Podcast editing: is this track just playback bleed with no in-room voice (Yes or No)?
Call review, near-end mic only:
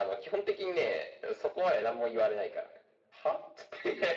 Yes